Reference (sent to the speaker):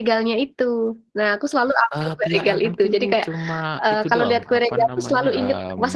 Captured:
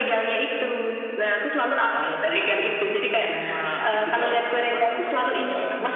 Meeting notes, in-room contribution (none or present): none